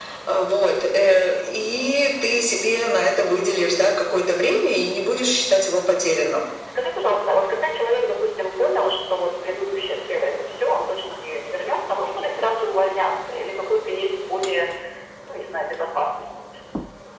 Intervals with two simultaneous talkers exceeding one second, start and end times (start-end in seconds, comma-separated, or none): none